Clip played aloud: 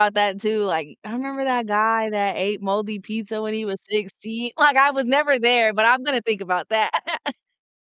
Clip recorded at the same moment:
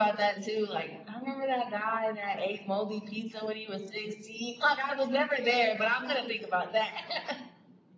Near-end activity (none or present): none